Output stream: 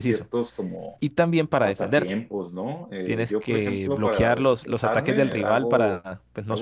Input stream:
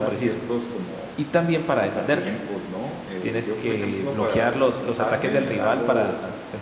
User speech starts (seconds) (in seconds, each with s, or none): none